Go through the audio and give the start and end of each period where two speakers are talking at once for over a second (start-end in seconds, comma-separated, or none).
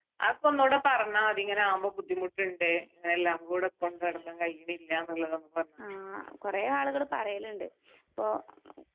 none